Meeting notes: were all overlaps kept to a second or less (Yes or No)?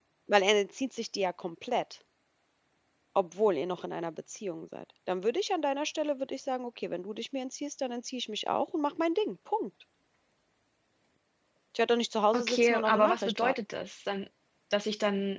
No